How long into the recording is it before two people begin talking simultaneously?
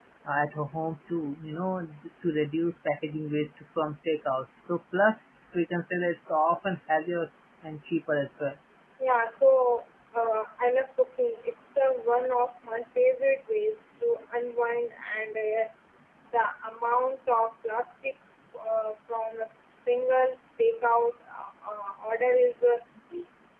none

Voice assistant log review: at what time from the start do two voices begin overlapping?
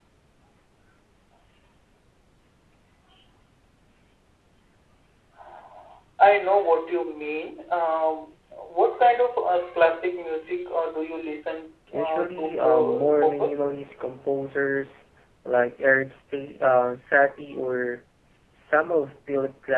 11.9 s

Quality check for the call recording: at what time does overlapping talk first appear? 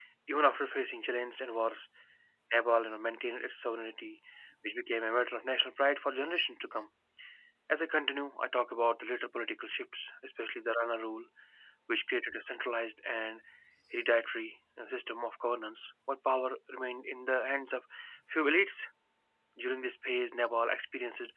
none

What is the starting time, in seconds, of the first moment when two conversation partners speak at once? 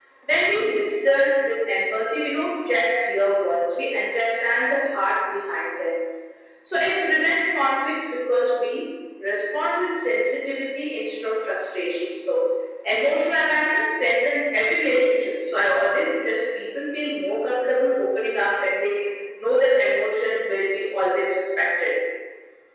none

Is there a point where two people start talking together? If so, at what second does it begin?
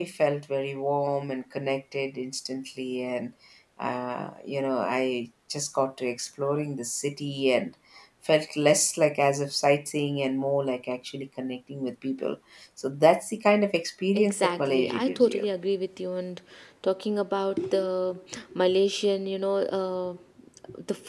14.1 s

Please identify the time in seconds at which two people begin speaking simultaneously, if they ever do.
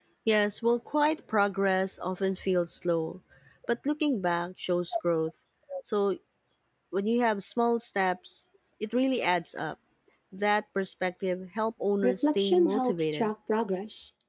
12.0 s

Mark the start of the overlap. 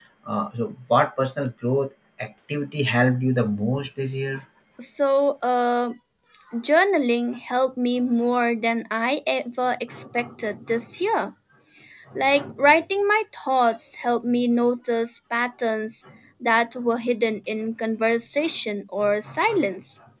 none

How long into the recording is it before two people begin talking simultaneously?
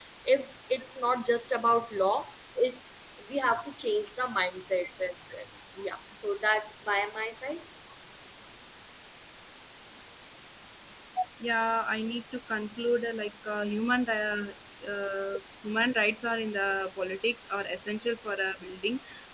none

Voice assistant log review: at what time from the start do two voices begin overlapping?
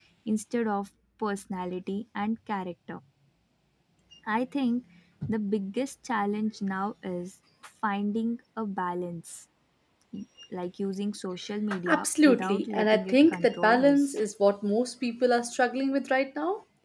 11.9 s

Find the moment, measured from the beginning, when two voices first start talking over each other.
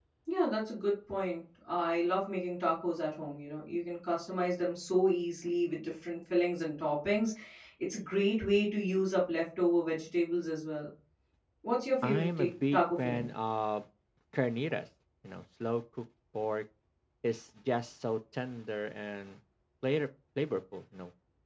12.0 s

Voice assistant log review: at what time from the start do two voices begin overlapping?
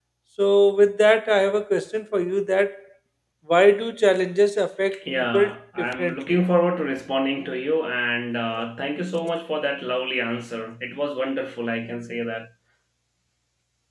4.9 s

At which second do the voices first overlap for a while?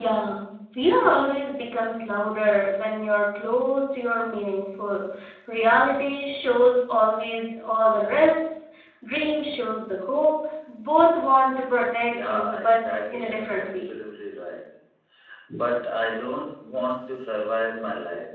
12.1 s

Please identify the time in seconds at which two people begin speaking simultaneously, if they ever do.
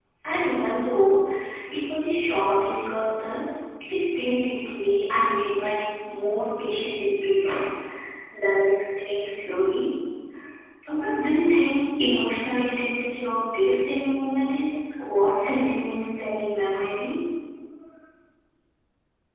none

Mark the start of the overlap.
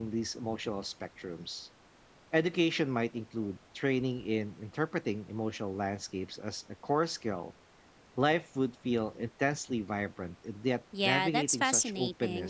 10.9 s

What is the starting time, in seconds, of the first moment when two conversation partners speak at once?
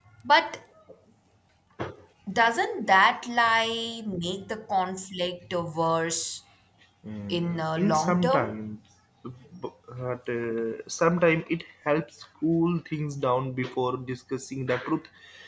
7.3 s

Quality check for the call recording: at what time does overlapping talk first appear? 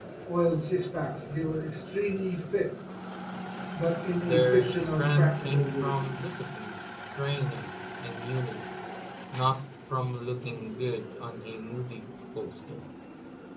4.2 s

